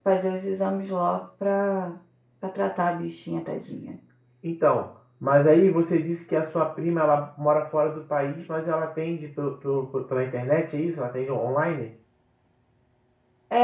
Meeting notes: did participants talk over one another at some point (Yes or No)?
No